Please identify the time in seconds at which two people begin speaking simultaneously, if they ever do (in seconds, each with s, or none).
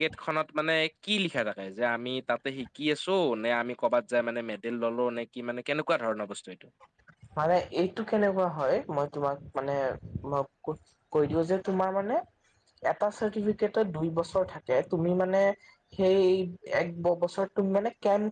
none